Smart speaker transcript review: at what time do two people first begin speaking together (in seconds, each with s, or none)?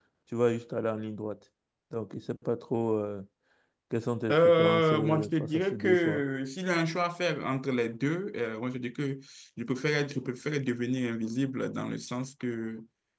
4.3 s